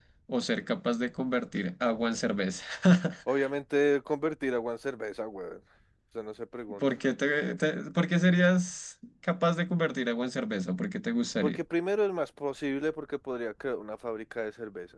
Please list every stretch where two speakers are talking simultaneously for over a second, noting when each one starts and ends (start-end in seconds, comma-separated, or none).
none